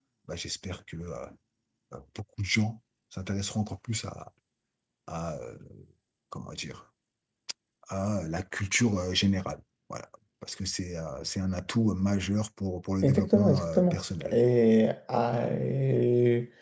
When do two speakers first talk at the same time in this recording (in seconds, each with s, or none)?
13.0 s